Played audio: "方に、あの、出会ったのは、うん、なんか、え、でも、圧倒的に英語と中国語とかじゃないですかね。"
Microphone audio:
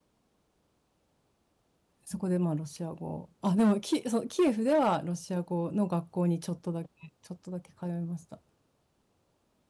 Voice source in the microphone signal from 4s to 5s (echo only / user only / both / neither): user only